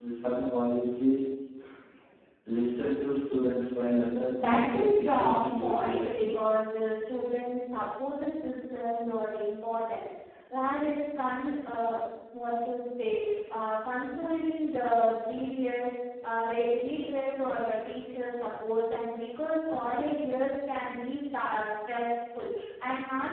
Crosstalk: present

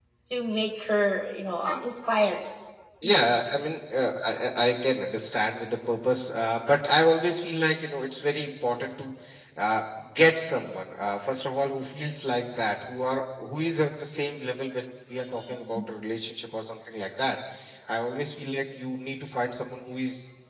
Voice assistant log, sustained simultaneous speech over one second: none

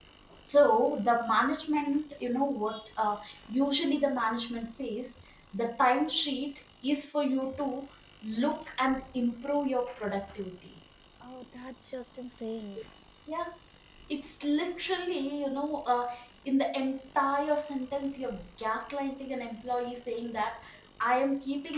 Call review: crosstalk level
none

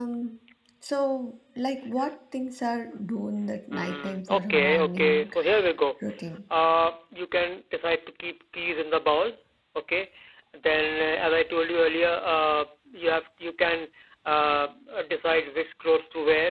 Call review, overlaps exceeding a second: present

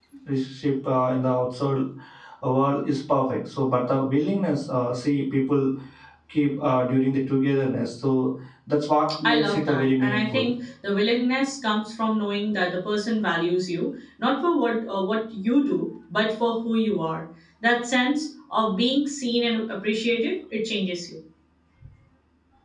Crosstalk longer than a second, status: present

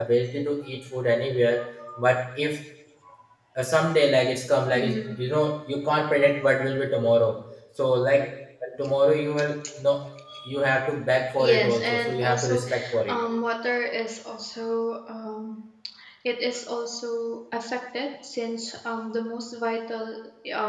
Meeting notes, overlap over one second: present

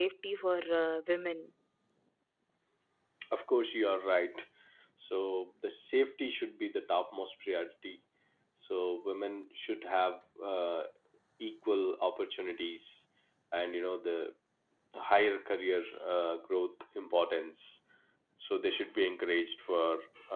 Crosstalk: none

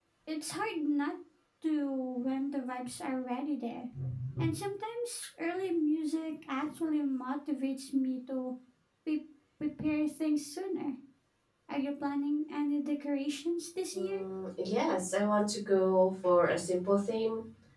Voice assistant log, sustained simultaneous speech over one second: none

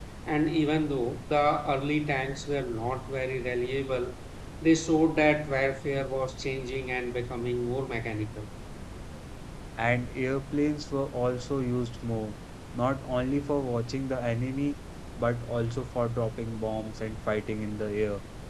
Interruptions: none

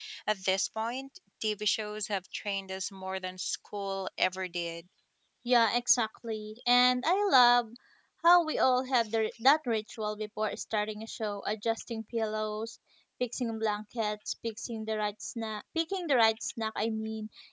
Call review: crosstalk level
none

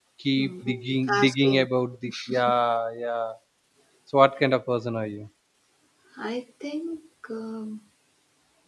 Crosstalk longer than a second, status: present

